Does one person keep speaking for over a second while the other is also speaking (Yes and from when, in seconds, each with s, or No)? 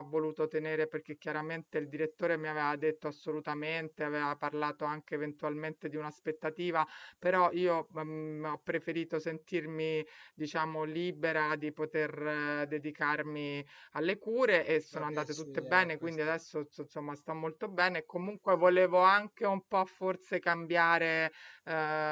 Yes, from 14.9 s